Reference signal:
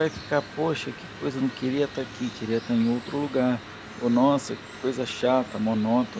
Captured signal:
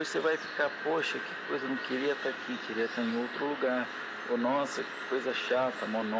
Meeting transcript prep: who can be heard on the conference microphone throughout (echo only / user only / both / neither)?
echo only